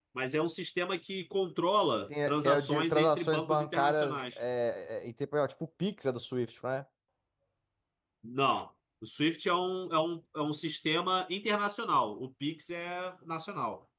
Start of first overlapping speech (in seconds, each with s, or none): 2.3 s